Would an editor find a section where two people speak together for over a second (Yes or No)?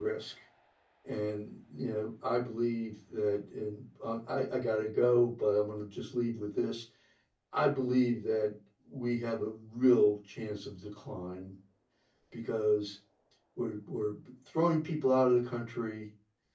No